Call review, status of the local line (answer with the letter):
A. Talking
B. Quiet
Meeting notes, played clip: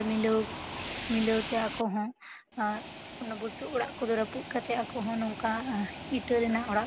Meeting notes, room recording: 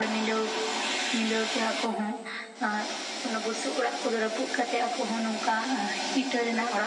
B